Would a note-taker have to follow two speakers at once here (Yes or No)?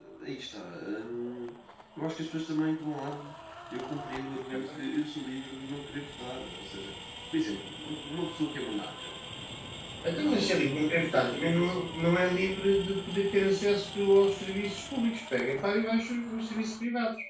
Yes